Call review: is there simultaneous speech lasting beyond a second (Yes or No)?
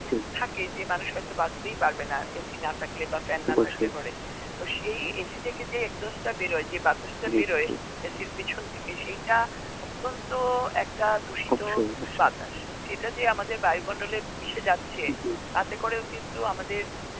No